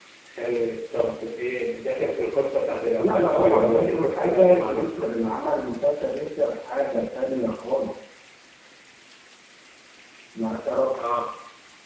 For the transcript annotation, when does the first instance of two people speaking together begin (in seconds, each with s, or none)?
3.0 s